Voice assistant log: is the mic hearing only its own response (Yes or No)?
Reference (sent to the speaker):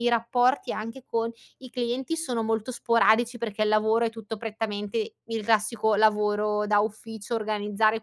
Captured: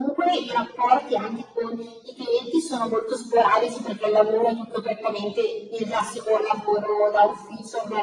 Yes